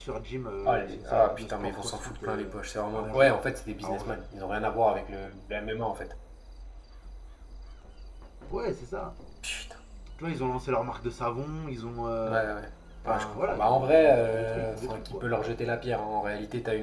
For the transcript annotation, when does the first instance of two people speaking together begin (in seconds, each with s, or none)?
0.7 s